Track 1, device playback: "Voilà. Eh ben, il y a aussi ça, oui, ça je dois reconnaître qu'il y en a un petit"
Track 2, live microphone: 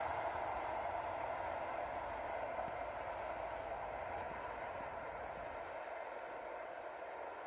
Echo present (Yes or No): No